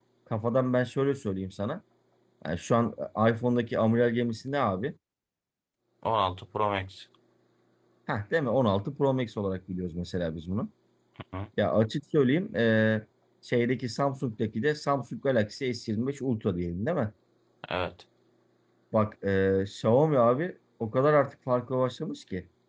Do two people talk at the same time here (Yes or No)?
No